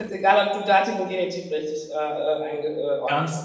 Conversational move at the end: taking over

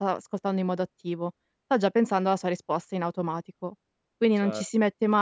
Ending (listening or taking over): listening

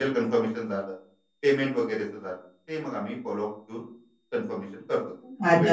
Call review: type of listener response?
taking over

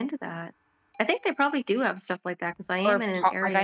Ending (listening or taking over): taking over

